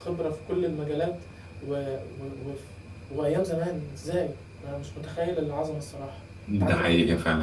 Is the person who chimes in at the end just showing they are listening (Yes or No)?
No